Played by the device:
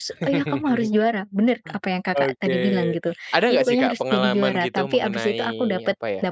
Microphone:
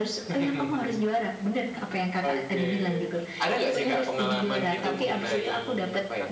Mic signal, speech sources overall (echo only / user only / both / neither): both